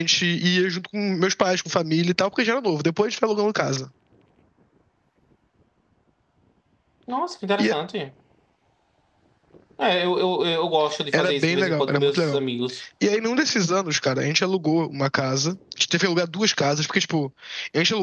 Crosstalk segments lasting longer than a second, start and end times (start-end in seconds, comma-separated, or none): 11.1-12.4